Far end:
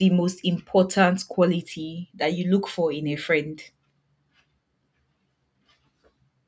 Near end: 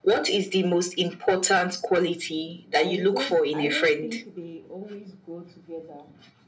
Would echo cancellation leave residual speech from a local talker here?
Yes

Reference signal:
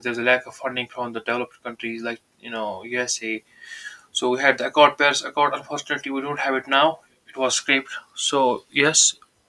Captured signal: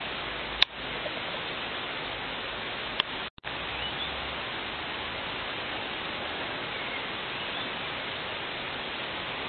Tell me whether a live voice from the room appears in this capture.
No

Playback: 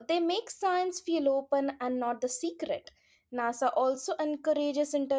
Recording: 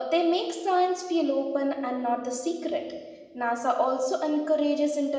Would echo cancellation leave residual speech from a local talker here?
No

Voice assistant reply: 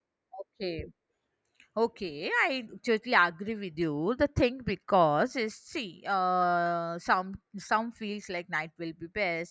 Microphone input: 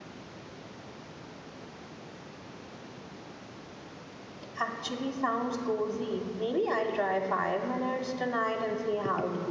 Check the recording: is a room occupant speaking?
Yes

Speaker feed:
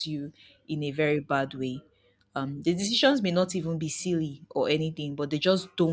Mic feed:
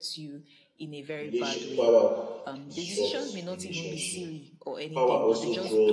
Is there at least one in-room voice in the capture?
Yes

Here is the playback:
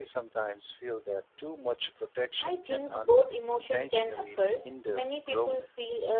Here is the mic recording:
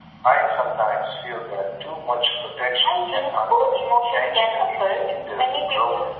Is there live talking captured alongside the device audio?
No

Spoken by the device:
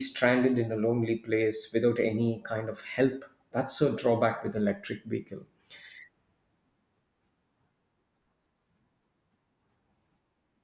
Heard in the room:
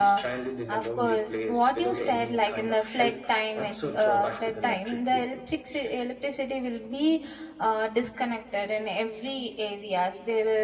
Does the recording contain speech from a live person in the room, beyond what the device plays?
Yes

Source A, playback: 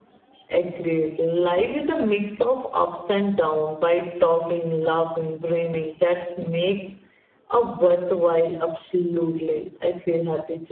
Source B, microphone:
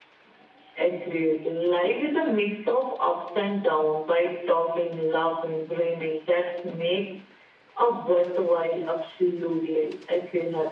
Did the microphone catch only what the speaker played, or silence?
Yes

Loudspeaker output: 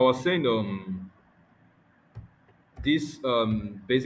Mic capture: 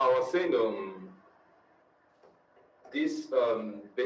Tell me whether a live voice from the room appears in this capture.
No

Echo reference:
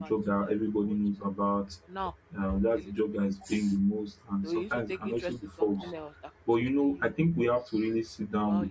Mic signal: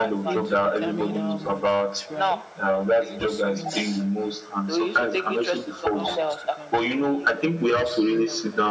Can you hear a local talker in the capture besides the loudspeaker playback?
Yes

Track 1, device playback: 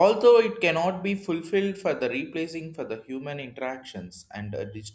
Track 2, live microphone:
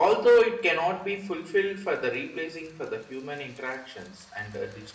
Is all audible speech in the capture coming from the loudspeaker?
Yes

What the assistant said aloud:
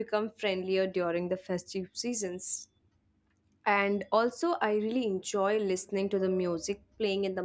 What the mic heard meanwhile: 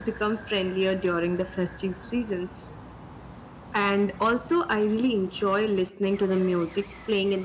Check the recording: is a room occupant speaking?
No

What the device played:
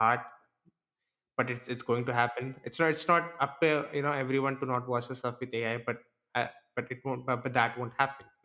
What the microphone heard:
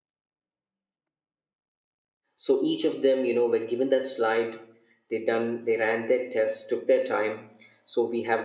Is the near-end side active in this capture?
Yes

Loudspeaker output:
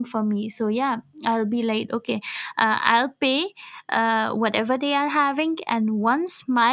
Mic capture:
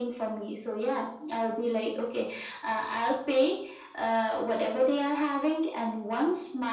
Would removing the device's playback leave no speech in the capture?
Yes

